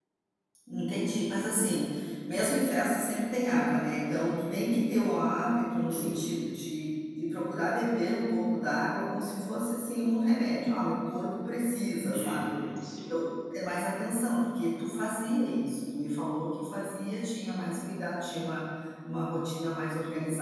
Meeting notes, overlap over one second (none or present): none